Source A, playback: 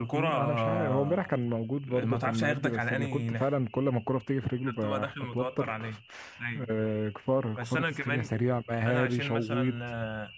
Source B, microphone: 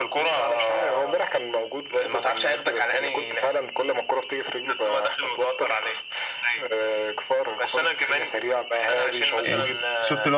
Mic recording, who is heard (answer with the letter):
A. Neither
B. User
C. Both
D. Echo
C